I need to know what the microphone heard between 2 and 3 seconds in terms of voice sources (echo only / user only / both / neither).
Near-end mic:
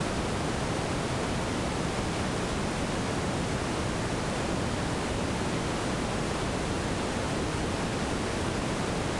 neither